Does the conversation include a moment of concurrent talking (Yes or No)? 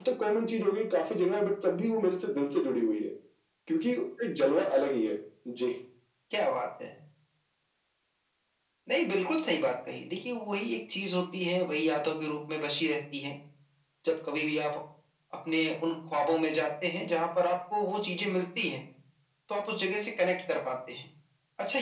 No